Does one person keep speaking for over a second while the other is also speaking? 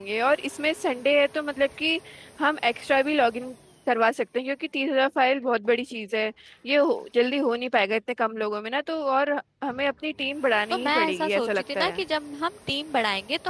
Yes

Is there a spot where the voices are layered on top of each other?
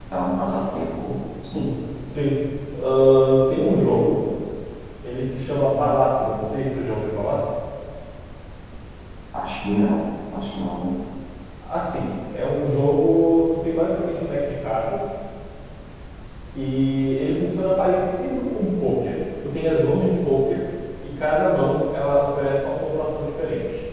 No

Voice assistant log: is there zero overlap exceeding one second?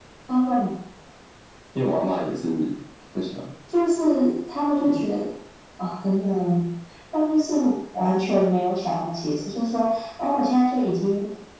Yes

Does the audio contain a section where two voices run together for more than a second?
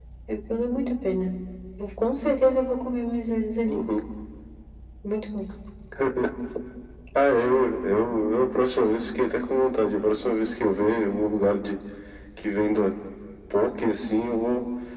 No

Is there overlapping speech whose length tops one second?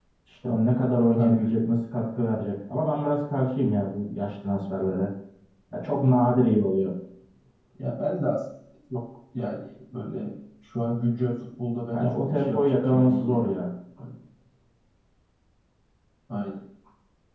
Yes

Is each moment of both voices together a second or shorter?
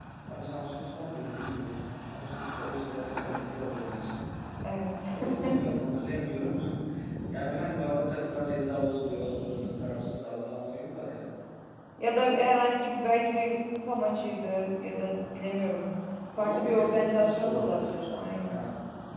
No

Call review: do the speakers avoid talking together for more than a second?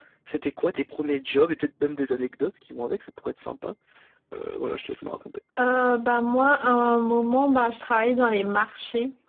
Yes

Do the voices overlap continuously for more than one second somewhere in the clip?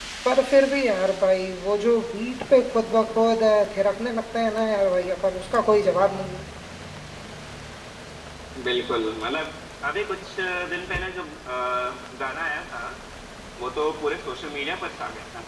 No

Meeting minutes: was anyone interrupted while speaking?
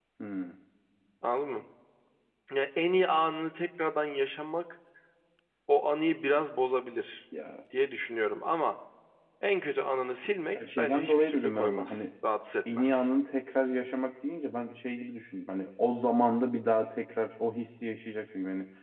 Yes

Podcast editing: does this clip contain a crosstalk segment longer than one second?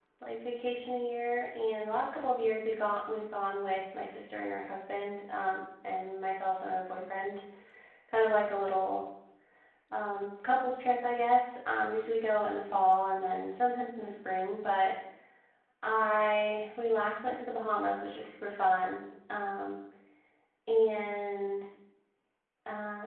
No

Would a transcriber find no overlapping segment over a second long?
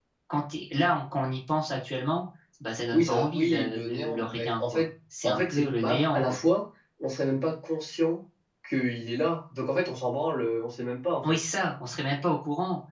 No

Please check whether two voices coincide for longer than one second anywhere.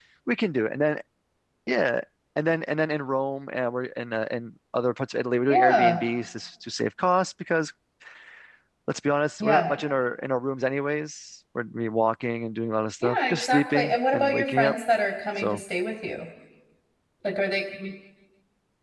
Yes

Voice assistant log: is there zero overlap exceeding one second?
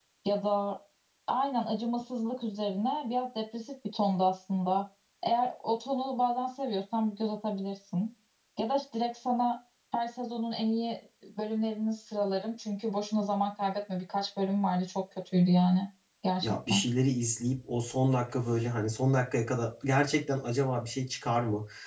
Yes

